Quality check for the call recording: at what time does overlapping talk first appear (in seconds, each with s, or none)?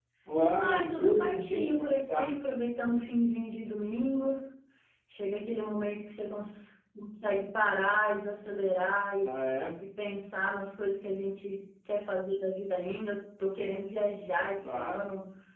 0.6 s